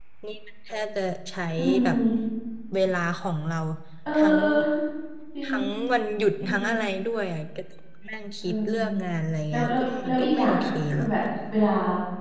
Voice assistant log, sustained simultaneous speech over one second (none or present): present